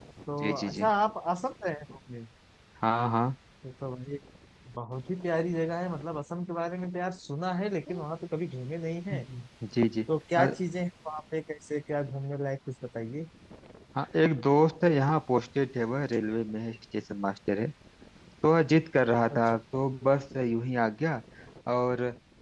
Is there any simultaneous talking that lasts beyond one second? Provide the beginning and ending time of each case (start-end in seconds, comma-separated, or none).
none